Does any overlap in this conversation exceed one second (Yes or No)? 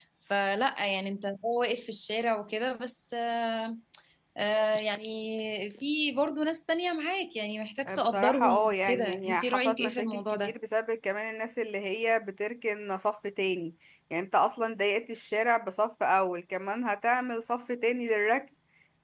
Yes